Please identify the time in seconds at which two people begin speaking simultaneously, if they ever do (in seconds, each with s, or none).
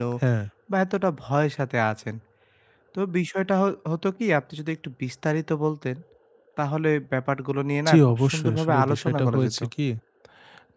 7.9 s